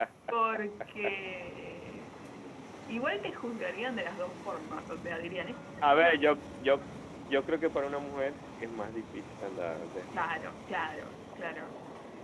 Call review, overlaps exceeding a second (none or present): none